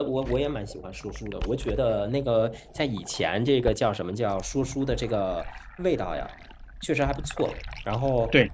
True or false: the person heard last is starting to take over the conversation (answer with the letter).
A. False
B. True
B